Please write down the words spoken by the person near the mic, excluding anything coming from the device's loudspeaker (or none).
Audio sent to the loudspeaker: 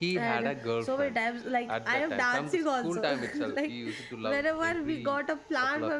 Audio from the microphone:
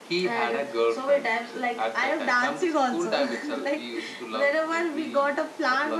none